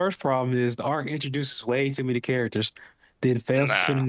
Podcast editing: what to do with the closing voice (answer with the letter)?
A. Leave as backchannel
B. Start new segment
A